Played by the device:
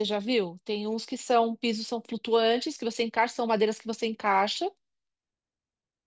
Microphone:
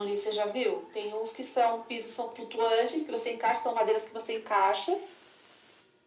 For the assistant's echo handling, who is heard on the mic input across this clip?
echo only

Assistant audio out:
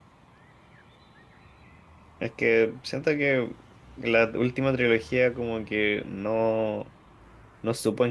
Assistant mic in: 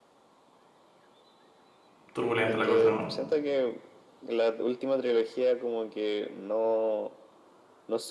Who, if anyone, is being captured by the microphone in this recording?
both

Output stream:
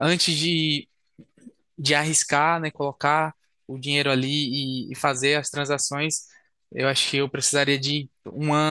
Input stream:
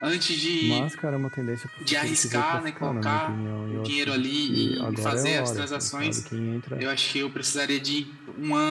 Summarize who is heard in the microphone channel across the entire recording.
both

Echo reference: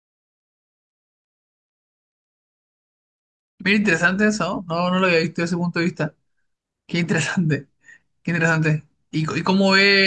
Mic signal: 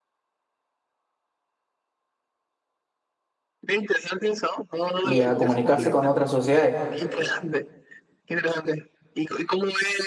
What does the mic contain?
both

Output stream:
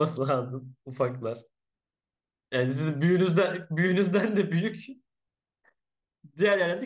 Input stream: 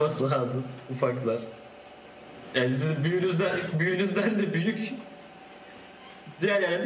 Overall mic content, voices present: echo only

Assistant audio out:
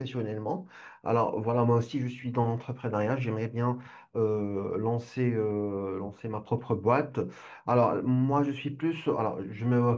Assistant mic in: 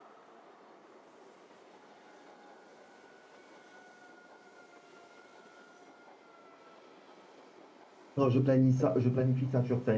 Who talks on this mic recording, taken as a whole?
user only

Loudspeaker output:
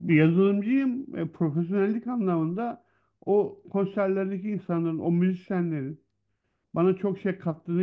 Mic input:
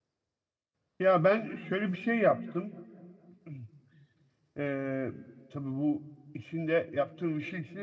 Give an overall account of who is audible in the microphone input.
user only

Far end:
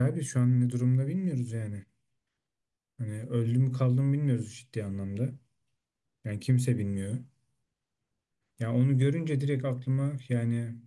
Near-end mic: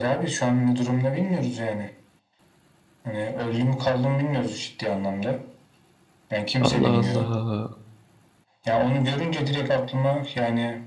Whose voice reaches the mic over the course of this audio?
both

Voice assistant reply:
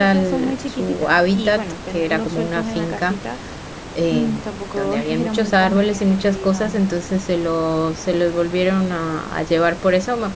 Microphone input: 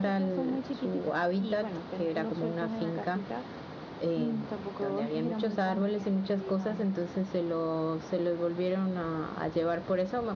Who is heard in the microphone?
echo only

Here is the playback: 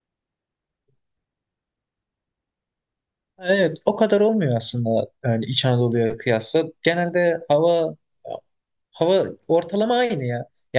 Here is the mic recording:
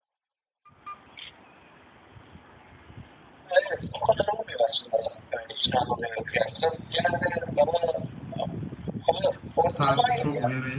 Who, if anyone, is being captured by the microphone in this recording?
both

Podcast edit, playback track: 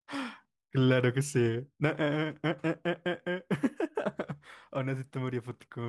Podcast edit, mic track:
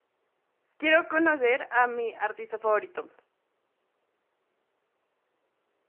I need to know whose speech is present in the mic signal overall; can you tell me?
user only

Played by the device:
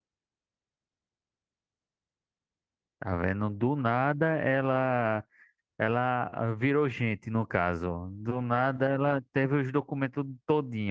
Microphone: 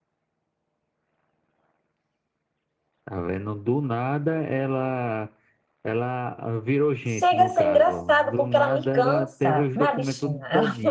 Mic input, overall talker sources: both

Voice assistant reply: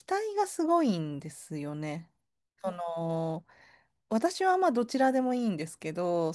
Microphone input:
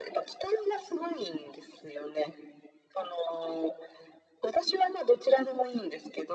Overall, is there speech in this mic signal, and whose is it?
echo only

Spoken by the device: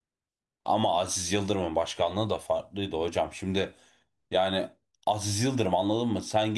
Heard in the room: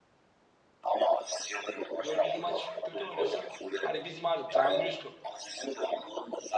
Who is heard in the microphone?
both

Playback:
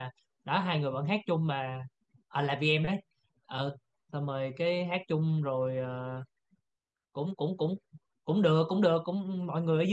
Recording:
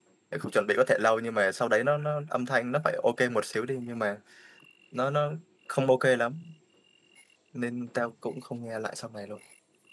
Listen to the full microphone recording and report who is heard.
user only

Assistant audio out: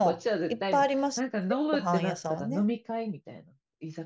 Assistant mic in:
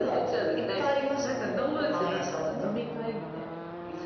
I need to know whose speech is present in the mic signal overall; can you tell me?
echo only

